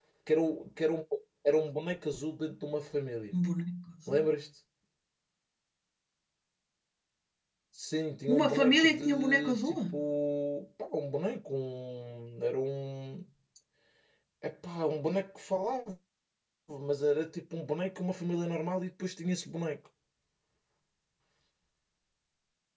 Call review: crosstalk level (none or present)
present